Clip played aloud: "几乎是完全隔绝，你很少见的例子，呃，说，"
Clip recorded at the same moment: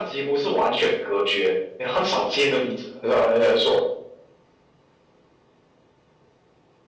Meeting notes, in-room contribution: none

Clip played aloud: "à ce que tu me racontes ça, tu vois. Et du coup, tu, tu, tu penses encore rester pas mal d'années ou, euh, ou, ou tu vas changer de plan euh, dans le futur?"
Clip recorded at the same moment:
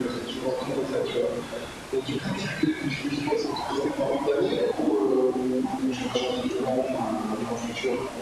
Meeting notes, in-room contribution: none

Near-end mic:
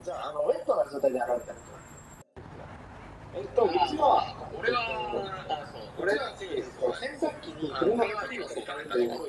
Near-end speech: none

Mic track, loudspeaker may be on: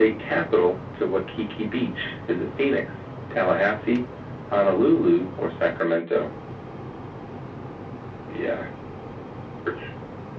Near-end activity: none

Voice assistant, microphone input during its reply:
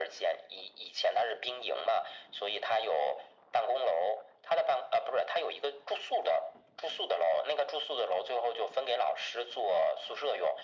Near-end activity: none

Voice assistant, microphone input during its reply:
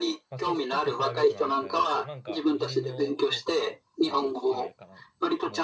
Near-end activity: present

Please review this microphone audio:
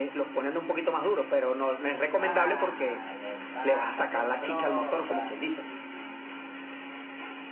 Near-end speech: present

